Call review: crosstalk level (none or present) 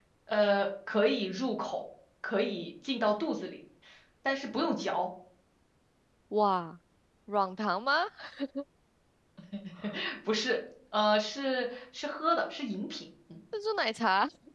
none